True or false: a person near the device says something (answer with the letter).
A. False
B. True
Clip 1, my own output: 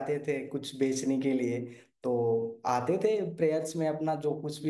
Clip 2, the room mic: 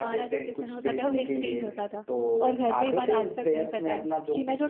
B